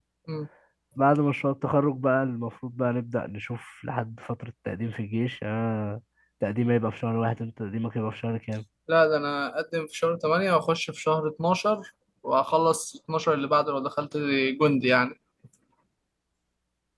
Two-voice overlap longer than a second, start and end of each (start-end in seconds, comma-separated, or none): none